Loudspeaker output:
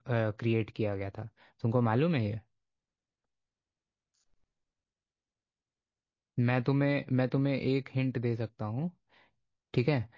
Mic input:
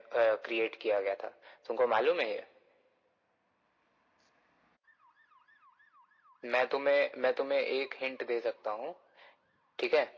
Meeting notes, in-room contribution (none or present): none